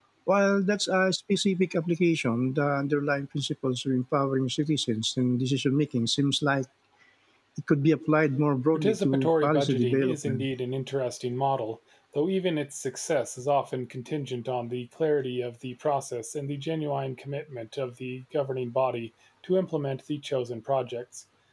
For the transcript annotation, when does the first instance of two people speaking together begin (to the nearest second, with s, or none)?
9 s